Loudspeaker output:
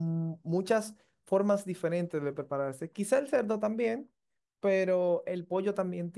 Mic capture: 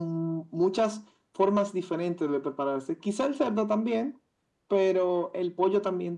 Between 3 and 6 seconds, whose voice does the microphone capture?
echo only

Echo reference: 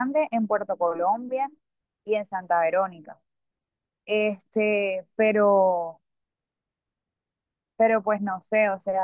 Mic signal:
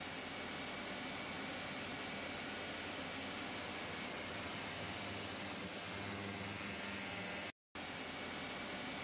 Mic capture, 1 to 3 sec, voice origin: neither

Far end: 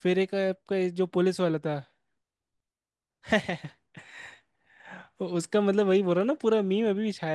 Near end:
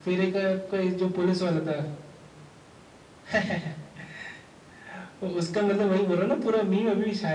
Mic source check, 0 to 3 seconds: echo only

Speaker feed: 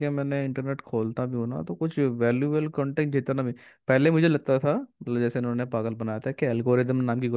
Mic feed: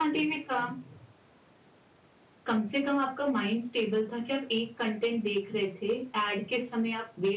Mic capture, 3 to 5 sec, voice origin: user only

